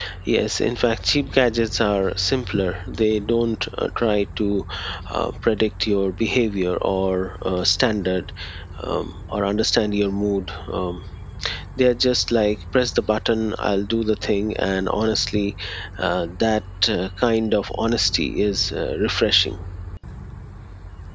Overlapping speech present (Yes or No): No